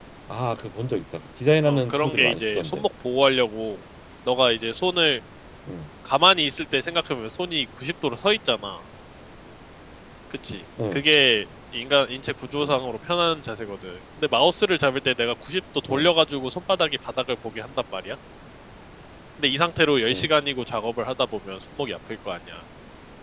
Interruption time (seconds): 1.6 s

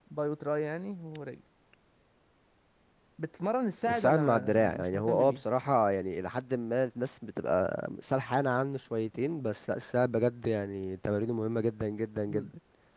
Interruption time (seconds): 3.9 s

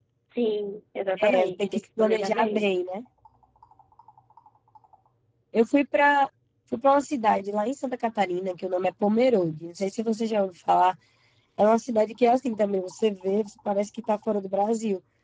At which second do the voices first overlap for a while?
1.2 s

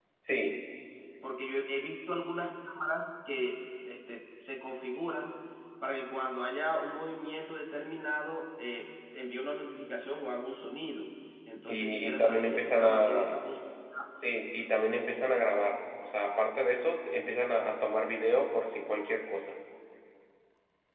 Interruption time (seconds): 11.7 s

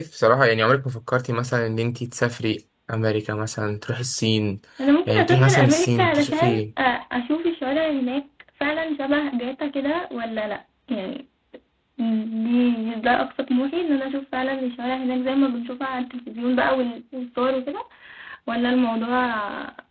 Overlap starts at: 5.1 s

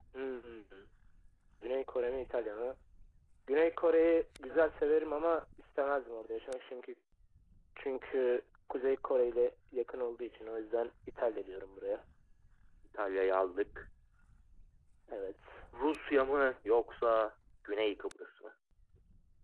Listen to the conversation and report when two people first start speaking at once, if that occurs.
none

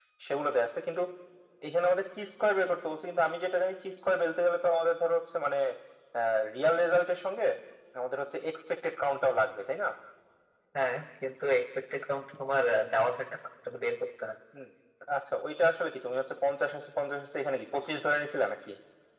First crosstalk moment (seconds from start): none

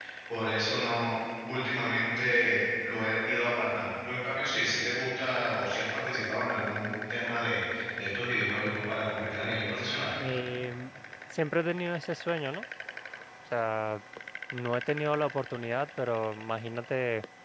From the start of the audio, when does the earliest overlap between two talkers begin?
none

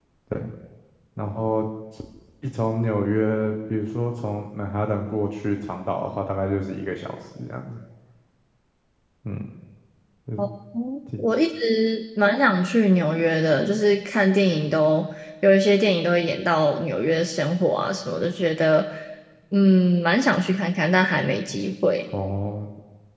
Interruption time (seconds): none

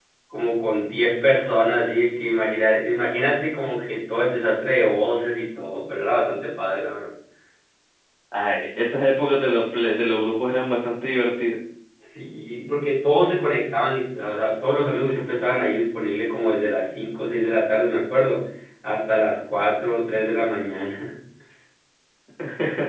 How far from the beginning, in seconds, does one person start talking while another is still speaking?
none

